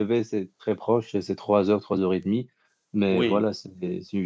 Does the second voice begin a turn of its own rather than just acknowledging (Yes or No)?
No